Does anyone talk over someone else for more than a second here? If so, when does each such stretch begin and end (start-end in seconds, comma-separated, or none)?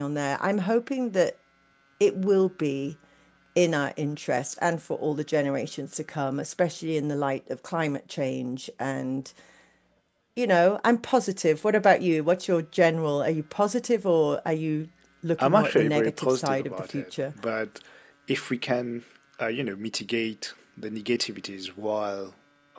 15.4-17.0